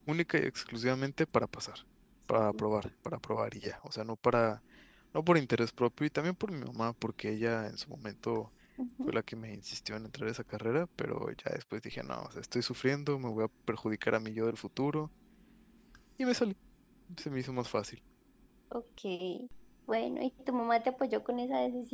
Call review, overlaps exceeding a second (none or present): none